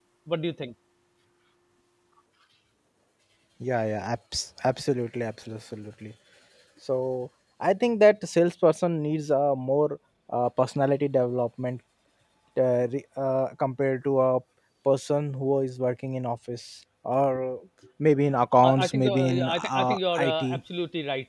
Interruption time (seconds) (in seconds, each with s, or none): 18.6 s